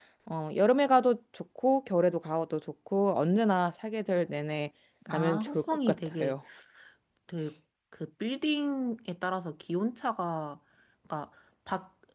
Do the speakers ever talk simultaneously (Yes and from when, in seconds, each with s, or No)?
Yes, from 5.0 s